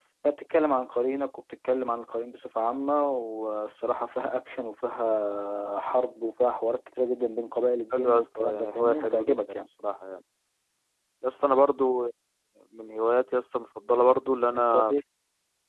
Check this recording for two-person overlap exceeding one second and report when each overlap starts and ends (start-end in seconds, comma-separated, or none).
7.9-9.7